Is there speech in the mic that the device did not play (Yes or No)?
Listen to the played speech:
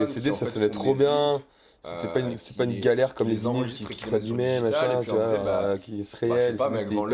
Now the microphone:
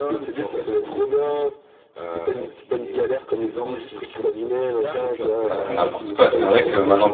Yes